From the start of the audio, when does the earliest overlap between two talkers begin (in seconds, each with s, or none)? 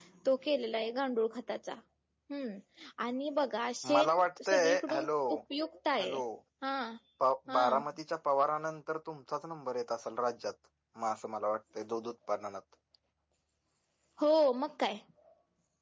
3.9 s